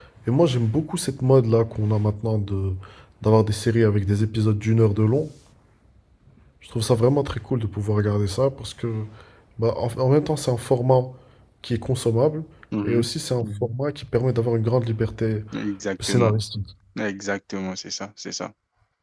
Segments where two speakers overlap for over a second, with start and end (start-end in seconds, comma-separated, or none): none